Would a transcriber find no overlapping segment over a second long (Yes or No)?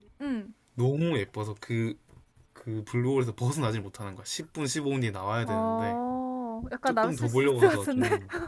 No